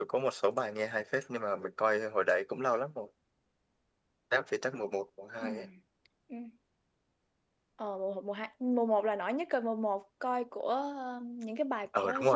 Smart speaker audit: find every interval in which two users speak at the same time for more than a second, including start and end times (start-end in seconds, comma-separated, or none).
none